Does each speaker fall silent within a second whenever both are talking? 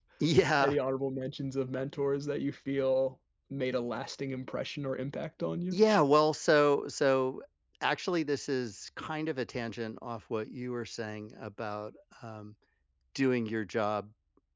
Yes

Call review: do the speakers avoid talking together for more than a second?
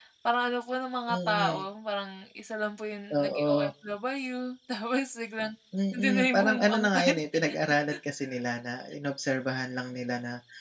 No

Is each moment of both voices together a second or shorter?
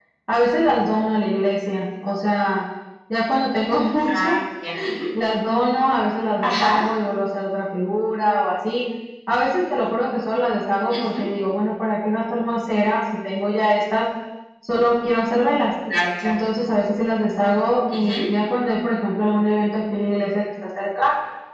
Yes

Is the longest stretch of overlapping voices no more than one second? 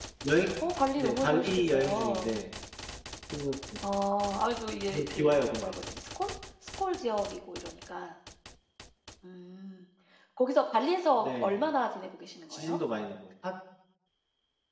No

